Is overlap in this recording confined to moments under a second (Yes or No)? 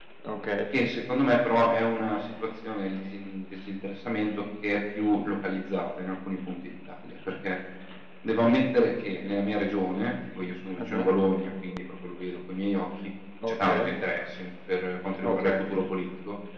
Yes